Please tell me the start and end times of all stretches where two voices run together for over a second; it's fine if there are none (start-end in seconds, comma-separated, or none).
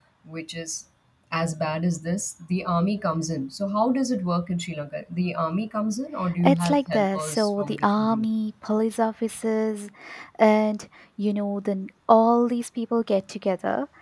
6.4-8.2